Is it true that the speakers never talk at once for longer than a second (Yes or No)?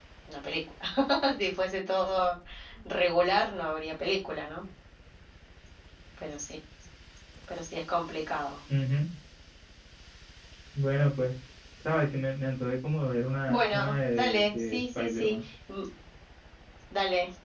No